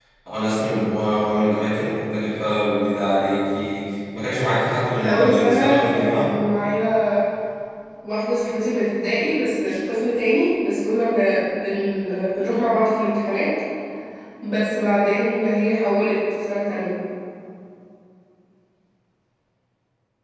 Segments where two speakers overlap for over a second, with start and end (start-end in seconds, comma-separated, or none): 5.0-6.3